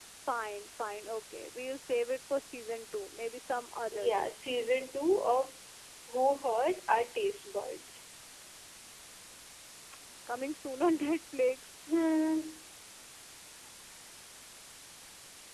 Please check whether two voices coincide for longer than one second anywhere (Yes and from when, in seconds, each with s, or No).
No